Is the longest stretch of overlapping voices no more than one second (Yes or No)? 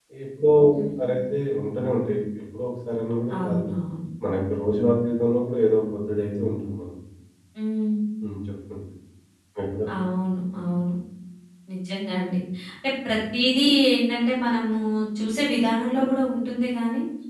Yes